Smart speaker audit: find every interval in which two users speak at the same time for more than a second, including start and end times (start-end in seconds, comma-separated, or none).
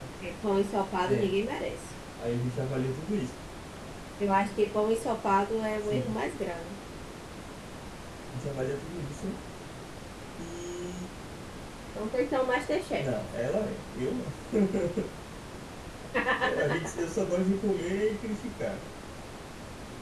none